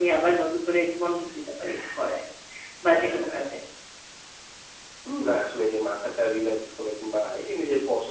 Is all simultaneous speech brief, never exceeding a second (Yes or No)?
Yes